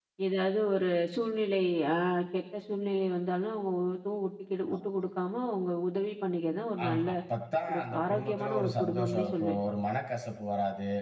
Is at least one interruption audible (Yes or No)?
Yes